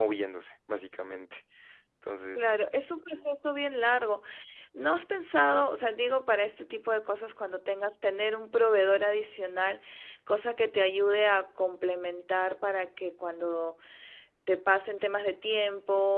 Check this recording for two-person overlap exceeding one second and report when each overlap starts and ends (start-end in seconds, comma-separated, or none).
none